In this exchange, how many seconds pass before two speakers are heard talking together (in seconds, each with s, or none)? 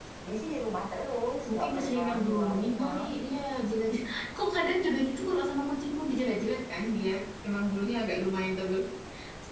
1.5 s